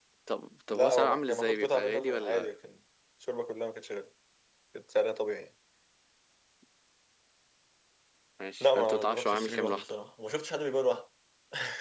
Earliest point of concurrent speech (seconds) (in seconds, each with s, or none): 0.7 s